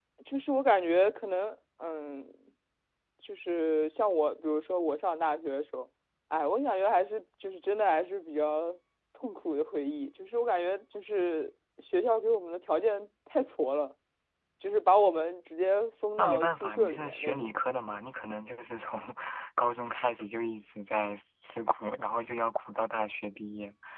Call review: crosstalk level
present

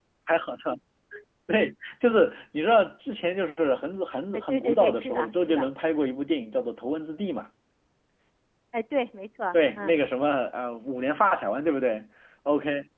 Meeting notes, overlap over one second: present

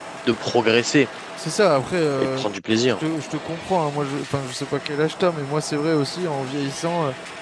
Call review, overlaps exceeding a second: none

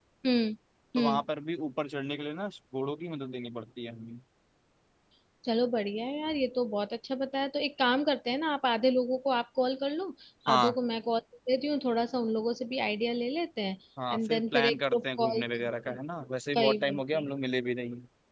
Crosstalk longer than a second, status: present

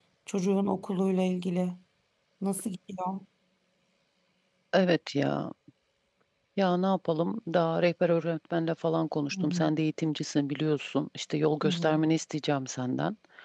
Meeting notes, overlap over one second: none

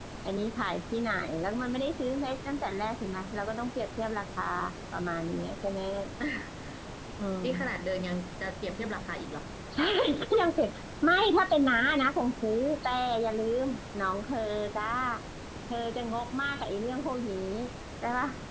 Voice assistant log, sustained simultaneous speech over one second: none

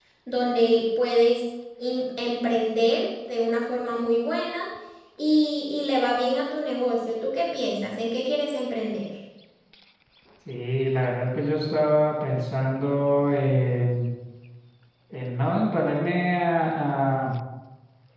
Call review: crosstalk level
none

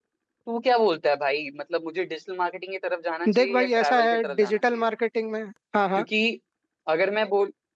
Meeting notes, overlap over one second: present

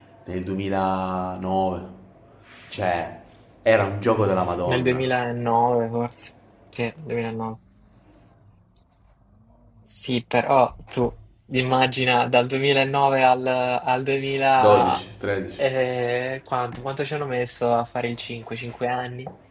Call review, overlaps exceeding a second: none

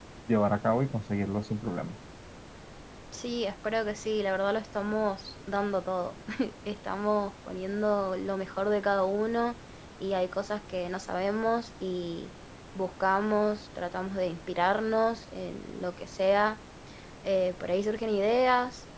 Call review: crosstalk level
none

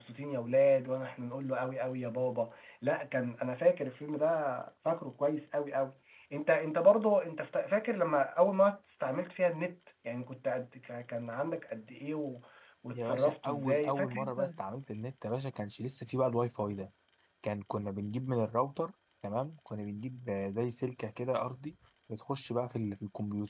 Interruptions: present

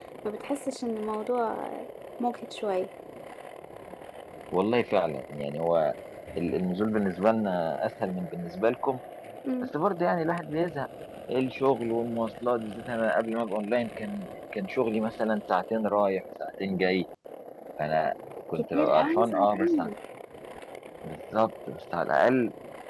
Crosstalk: present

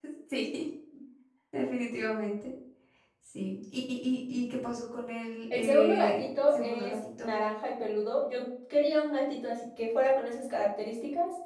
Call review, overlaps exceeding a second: present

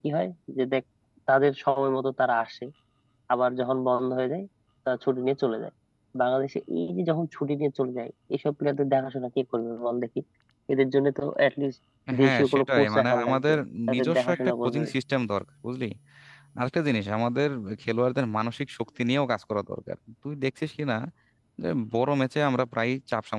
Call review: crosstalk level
present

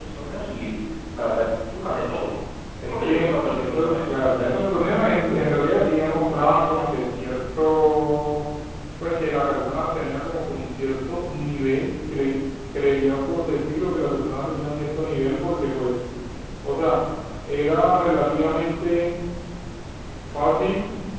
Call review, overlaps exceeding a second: present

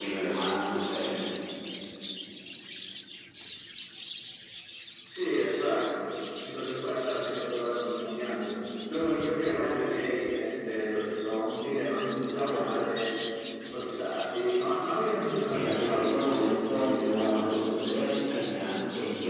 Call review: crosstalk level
present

